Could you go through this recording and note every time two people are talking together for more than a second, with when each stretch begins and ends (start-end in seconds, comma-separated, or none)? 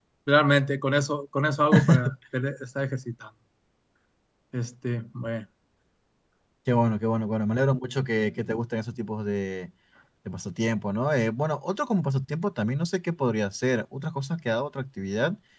none